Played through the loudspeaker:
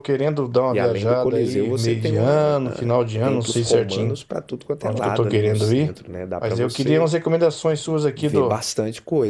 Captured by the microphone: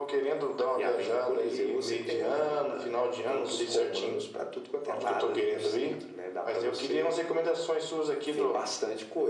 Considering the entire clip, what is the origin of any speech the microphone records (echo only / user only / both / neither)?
echo only